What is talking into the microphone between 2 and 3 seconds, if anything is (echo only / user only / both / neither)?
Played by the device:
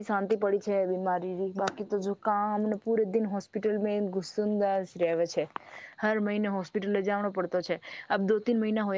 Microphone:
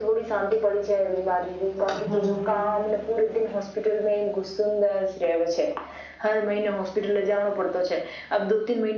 both